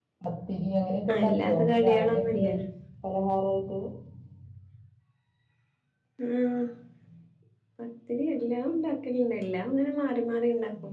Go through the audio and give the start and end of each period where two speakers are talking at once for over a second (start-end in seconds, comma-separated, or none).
1.2-2.5